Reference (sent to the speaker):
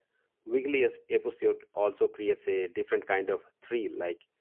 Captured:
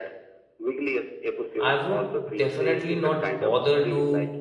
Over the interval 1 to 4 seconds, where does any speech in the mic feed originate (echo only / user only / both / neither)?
both